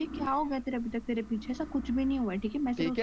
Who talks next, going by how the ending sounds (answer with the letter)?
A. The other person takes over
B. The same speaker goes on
A